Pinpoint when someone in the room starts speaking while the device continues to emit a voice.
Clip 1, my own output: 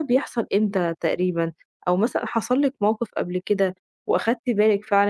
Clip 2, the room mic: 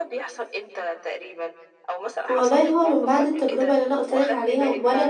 2.3 s

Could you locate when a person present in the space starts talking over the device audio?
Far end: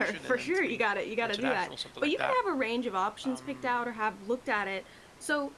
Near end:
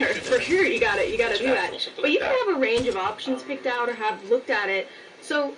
none

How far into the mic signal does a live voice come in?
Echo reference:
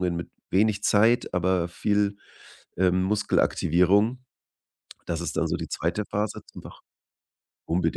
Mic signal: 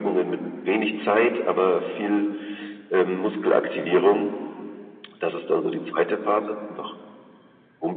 none

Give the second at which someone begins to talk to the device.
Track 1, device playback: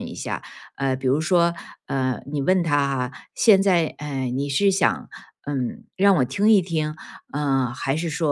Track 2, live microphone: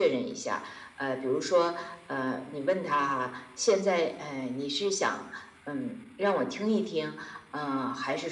none

